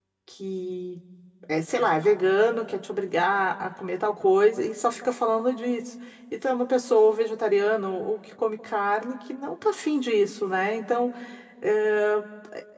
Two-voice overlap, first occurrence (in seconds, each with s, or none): none